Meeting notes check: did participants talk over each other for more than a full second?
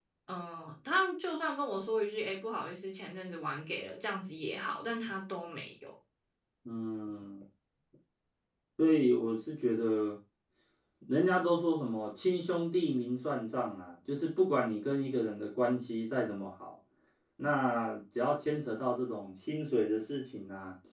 No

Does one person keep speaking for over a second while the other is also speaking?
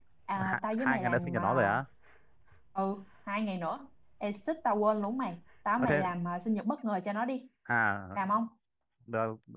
Yes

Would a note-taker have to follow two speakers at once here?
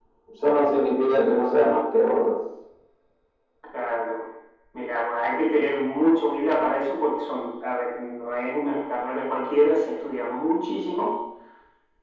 No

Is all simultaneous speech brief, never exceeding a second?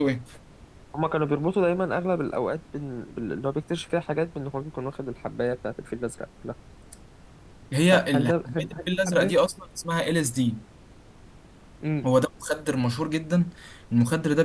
No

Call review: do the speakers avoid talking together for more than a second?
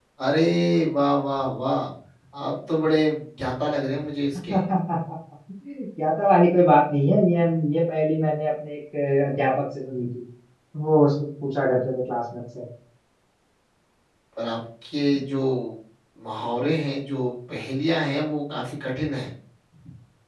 Yes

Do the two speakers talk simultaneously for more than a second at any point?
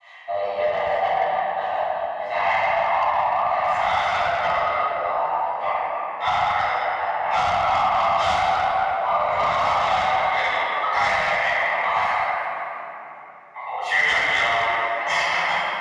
Yes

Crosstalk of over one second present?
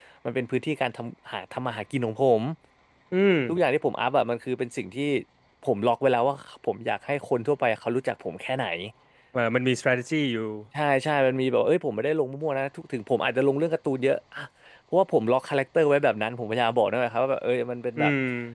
No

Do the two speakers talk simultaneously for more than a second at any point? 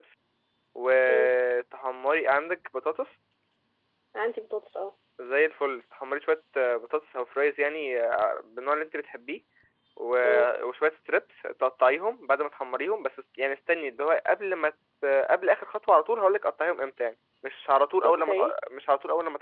No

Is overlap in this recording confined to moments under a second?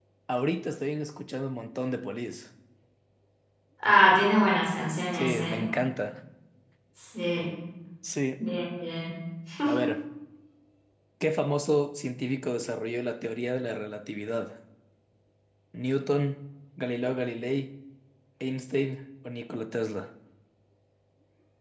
Yes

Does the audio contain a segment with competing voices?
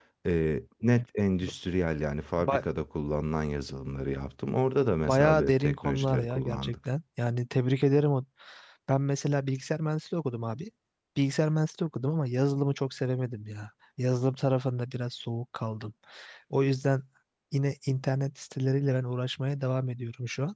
Yes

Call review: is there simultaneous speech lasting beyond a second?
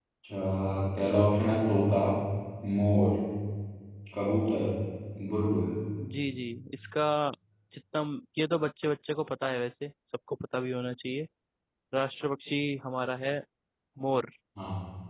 No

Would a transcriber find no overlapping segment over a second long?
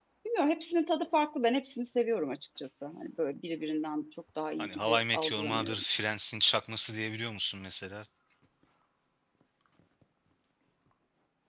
No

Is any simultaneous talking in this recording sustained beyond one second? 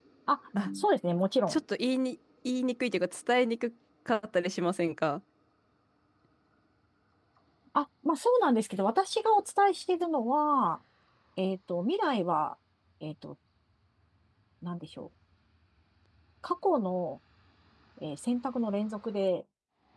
No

